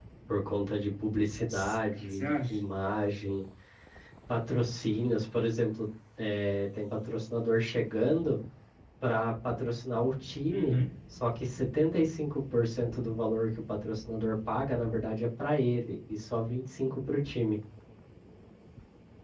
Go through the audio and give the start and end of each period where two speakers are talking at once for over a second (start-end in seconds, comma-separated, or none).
1.4-2.6